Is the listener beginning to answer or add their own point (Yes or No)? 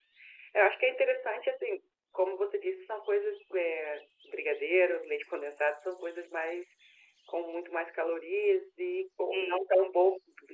No